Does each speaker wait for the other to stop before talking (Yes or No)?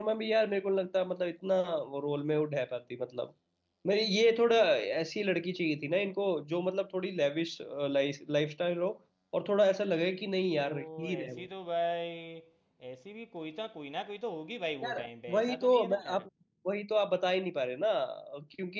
No